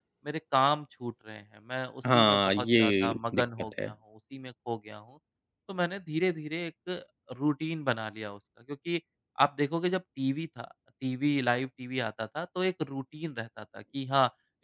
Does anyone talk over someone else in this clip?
Yes, from 2.0 s

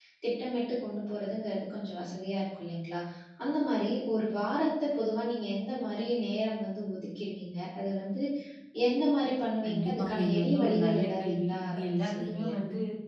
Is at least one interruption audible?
Yes, from 9.6 s

